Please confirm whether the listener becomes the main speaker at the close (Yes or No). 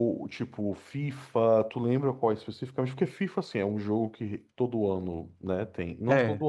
No